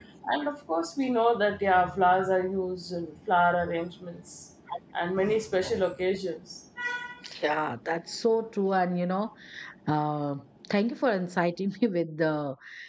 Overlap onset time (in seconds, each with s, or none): none